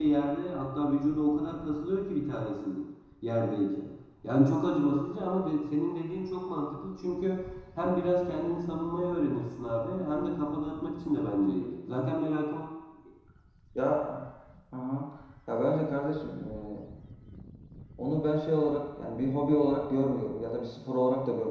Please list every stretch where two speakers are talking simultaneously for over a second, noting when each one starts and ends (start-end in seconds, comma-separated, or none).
none